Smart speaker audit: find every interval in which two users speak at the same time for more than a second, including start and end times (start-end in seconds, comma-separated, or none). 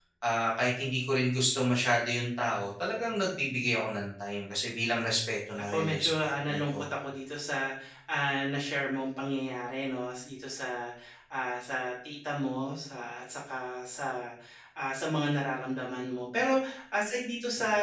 5.6-6.9